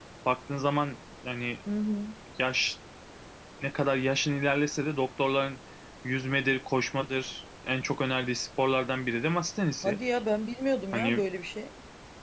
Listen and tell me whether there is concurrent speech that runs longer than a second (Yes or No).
No